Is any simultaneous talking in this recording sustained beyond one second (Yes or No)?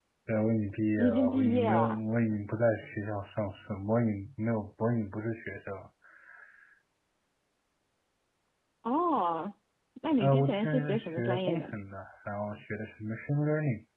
Yes